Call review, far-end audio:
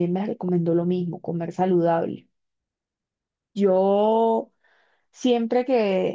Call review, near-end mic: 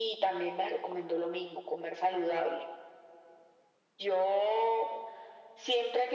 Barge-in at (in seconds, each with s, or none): none